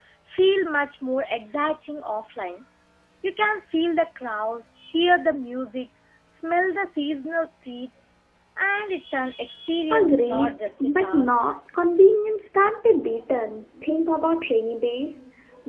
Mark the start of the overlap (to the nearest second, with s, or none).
10 s